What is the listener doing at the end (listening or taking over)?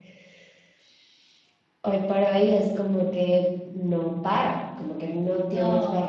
listening